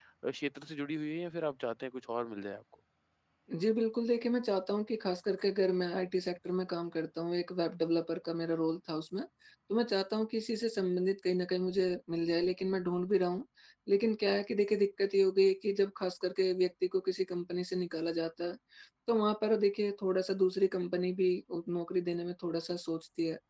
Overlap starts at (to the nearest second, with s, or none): none